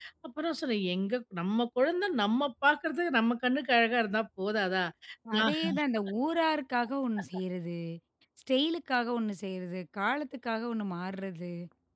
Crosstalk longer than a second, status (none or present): none